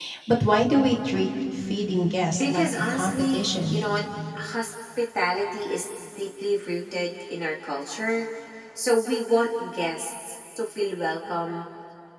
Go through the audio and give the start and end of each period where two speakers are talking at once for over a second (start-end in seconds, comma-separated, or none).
2.4-3.8